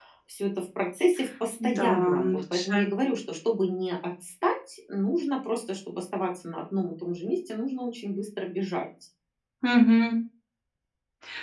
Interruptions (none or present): present